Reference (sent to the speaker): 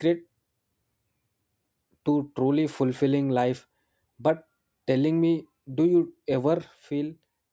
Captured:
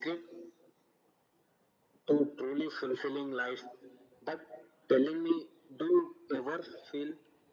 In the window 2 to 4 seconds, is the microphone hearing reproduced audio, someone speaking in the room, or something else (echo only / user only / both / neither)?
echo only